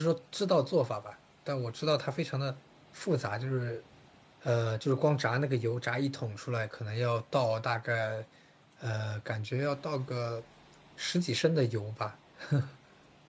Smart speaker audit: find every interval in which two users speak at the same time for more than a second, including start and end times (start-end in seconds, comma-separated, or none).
none